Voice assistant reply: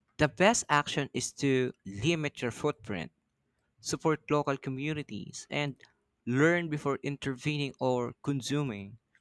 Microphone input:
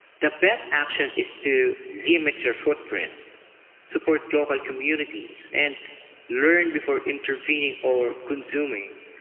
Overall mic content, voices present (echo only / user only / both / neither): echo only